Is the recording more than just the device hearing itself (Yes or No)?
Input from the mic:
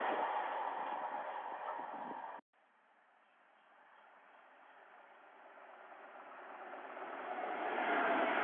No